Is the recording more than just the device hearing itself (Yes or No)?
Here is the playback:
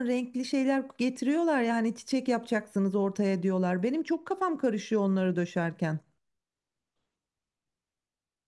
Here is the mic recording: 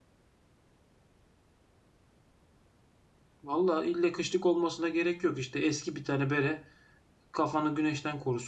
Yes